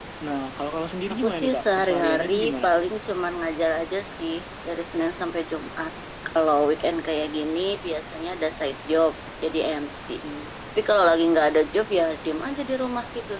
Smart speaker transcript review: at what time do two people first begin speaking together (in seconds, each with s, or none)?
1.2 s